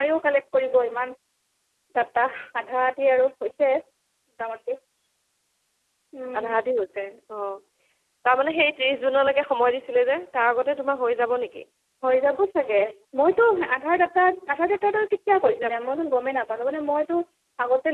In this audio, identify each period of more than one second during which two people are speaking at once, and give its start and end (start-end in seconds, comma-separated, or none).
none